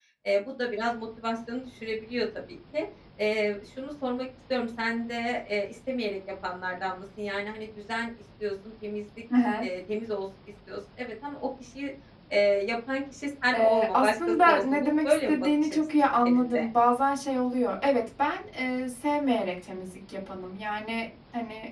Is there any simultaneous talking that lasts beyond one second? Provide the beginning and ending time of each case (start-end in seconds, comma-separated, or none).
13.5-16.6